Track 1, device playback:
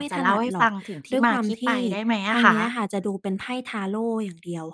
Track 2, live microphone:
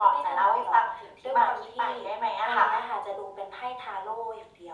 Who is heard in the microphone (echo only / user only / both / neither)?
echo only